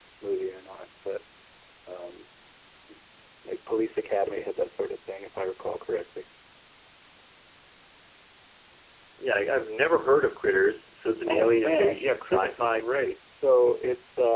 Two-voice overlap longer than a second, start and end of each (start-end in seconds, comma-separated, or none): 11.3-12.8